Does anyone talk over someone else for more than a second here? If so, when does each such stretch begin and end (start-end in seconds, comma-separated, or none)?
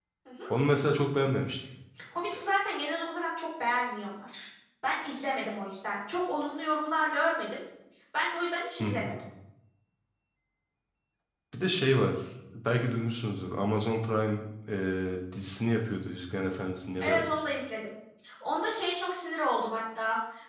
none